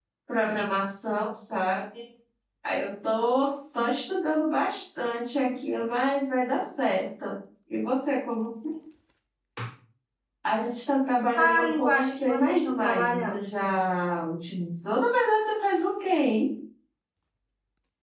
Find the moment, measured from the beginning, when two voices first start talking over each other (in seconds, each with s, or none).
11.3 s